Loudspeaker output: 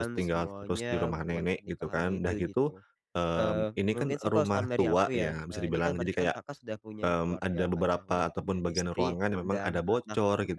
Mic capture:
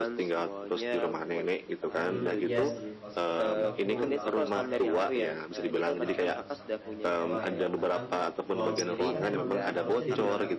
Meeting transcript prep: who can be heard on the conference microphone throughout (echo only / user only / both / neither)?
both